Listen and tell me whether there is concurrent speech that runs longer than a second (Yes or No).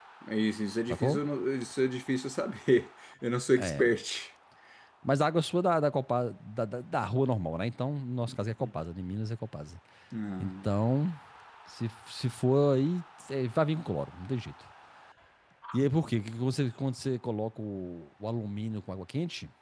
No